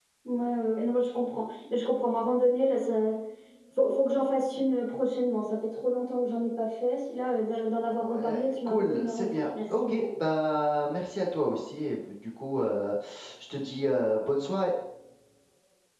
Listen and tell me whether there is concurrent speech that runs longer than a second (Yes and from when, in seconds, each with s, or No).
Yes, from 7.9 s